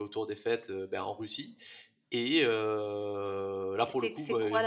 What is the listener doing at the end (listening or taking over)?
taking over